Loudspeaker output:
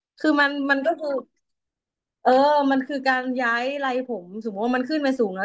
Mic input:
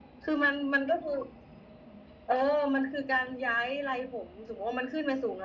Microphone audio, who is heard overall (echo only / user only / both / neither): echo only